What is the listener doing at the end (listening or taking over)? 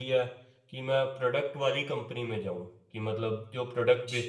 listening